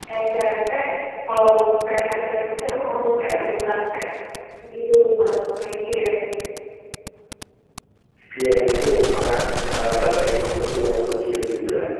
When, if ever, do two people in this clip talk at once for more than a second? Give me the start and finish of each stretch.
none

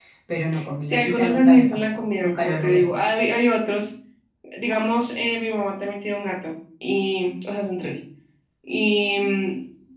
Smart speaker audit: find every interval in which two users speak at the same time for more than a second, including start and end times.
0.9-2.9

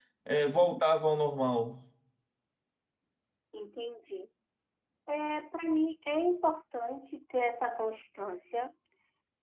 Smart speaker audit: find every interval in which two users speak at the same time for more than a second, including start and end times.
none

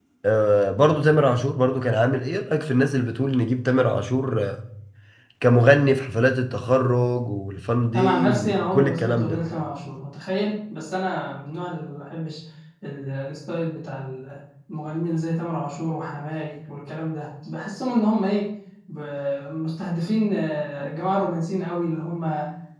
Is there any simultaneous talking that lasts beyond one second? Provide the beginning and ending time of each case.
8.0-9.4

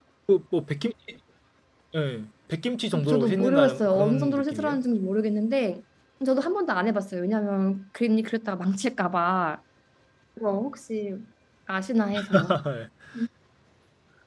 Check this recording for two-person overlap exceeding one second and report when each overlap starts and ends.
2.9-4.8

